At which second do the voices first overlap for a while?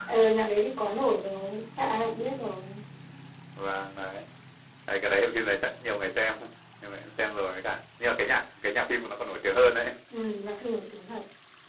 none

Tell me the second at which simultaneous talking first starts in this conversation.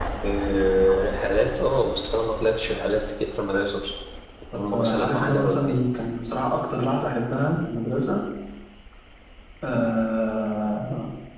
4.5 s

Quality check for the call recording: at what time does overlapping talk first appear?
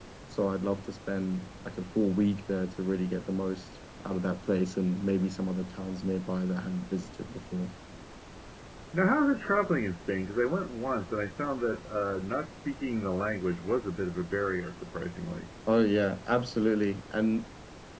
none

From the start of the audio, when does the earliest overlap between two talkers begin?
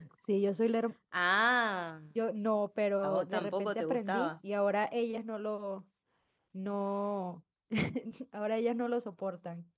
3.0 s

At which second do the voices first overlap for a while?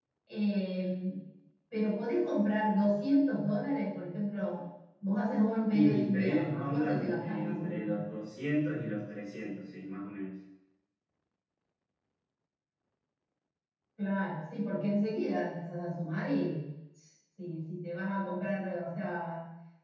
5.7 s

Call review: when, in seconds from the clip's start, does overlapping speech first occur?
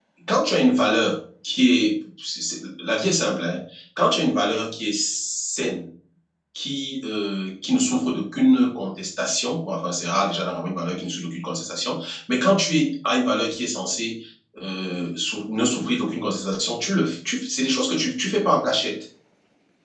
none

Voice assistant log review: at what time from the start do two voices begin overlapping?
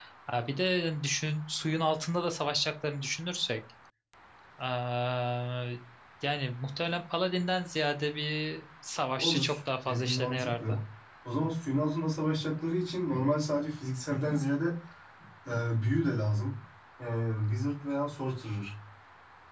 9.2 s

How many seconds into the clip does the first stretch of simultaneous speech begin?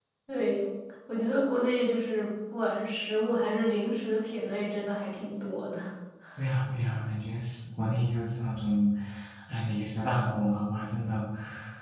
none

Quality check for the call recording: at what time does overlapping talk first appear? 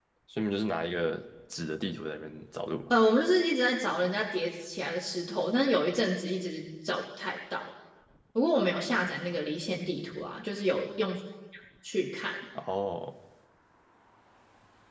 none

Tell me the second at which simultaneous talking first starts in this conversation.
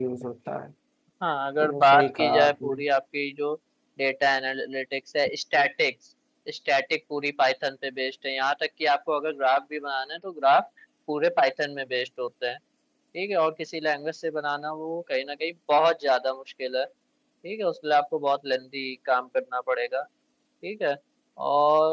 1.6 s

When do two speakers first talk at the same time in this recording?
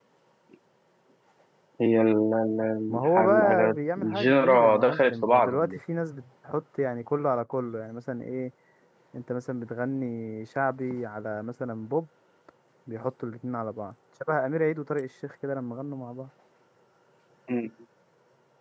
2.9 s

